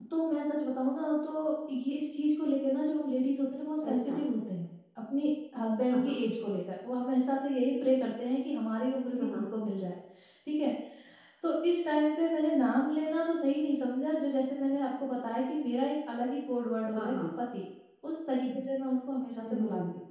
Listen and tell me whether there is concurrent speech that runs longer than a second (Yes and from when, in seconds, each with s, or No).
No